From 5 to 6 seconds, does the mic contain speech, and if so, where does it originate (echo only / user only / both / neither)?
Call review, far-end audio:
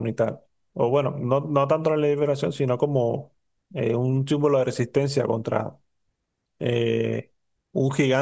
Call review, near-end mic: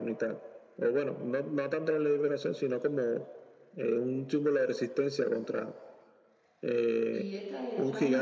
echo only